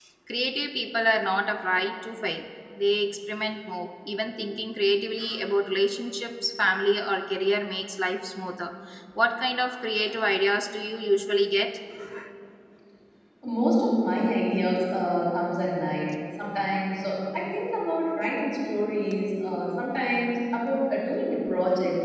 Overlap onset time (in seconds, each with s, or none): none